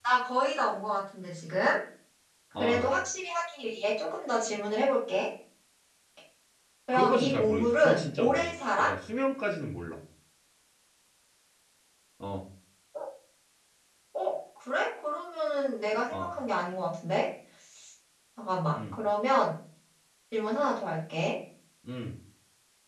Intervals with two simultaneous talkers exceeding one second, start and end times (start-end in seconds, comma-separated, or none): 6.9-8.9